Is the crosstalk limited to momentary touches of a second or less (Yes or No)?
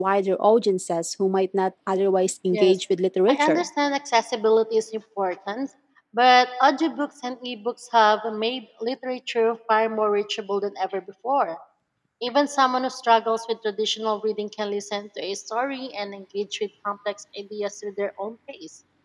Yes